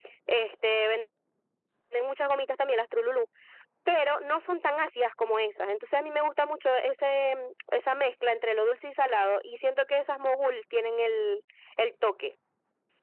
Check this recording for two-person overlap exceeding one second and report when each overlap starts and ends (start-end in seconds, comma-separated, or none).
none